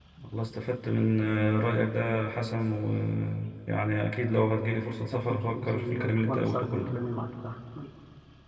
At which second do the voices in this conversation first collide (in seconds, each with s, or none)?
5.2 s